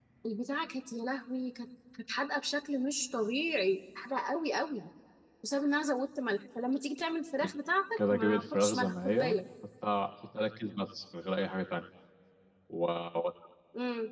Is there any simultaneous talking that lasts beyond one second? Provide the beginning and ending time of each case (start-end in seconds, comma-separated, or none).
8.0-9.4